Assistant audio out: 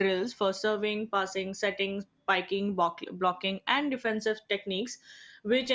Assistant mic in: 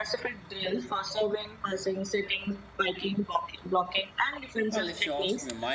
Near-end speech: present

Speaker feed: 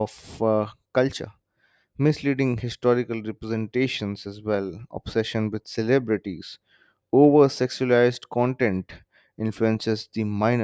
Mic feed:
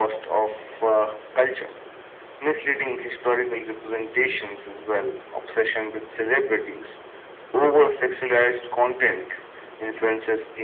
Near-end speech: none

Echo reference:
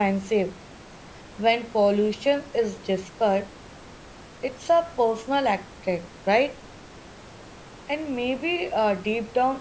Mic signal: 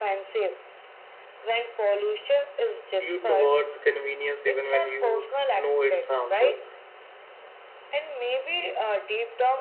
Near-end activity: present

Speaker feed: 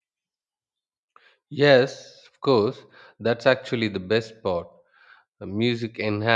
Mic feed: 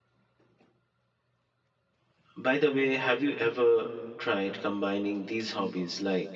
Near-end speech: present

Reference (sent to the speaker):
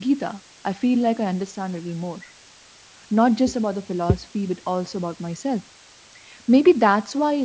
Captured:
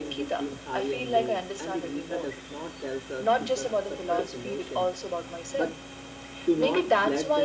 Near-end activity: present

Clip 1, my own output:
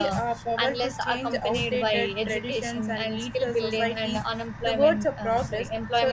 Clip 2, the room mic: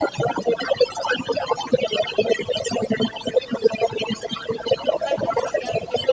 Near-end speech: present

